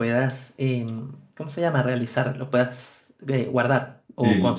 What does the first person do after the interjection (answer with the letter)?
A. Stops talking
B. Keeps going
A